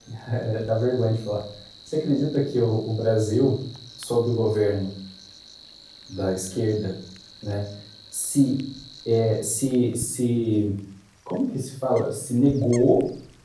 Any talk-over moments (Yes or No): No